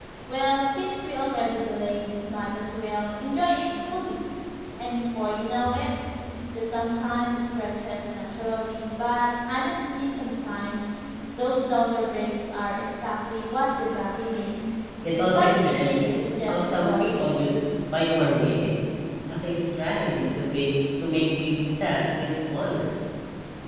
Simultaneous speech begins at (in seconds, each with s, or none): 15.3 s